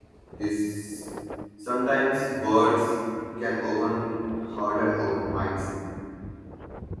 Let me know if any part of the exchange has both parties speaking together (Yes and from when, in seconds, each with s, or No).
No